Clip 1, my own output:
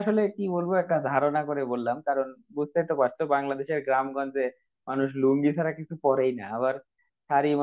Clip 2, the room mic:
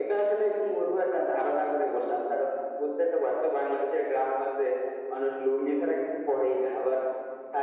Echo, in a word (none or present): present